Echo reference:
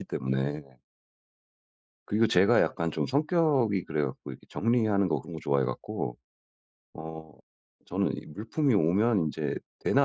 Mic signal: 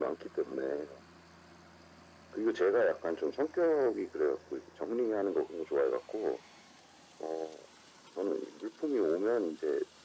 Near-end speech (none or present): none